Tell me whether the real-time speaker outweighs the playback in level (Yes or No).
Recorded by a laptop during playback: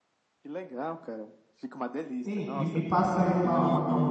Yes